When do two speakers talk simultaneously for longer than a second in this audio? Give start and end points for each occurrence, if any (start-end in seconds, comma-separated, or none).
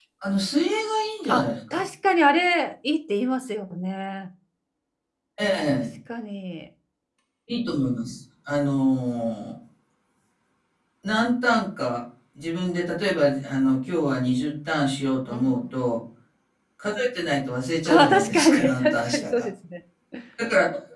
17.8-19.5